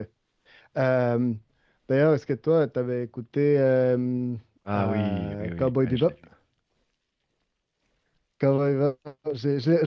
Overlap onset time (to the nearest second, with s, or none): 5 s